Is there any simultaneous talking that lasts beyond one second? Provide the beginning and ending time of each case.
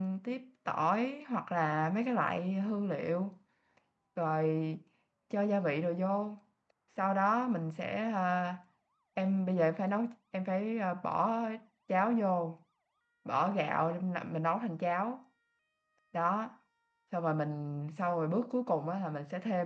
none

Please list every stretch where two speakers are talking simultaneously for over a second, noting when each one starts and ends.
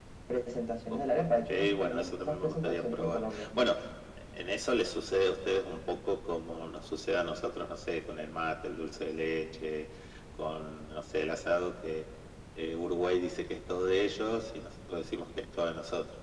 0.9-3.5

